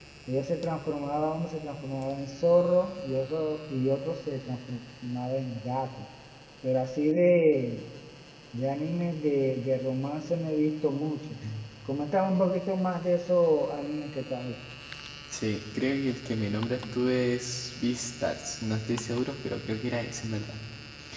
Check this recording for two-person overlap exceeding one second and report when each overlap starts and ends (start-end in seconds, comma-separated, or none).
none